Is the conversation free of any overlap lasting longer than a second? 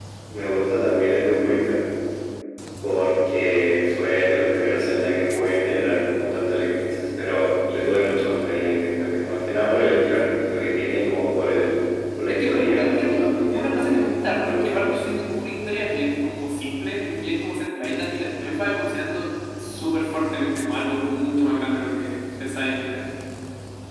No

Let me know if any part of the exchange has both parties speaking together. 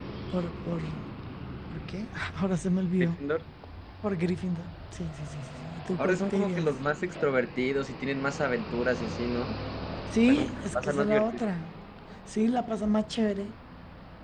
Yes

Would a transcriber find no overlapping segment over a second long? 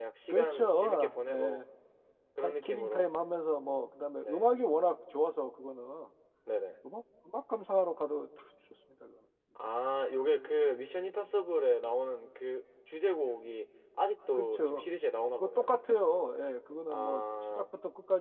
No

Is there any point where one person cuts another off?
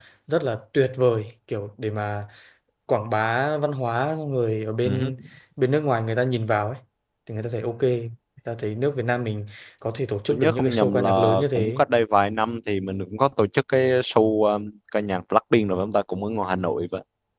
Yes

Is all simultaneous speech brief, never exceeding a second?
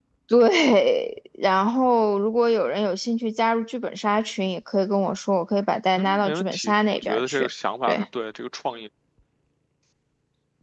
No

